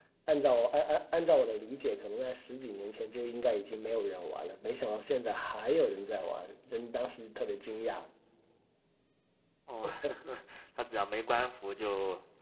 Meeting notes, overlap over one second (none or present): none